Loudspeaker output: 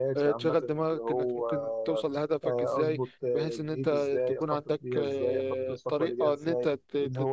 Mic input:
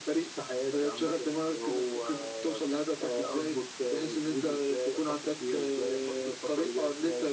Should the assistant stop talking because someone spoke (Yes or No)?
No